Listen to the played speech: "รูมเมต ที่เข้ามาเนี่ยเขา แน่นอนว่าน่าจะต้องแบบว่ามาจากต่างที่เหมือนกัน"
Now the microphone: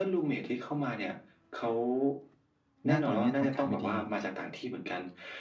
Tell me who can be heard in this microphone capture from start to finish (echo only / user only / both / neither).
both